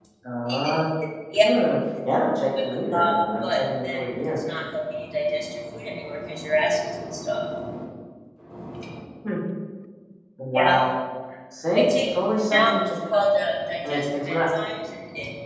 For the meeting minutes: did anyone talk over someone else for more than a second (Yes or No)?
Yes